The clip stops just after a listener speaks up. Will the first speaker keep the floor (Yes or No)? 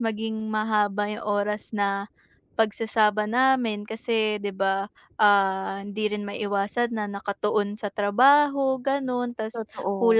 Yes